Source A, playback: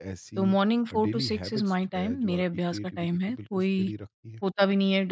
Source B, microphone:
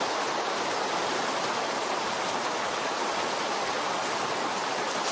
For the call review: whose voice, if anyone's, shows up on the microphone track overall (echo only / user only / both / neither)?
neither